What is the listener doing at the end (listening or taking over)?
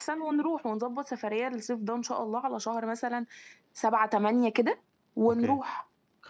taking over